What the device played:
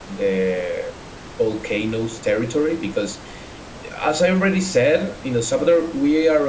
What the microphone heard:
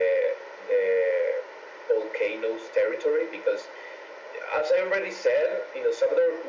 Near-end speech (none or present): none